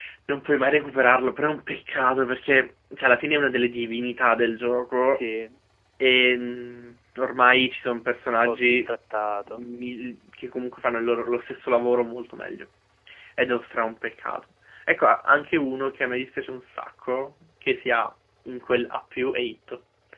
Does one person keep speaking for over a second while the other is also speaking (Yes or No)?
No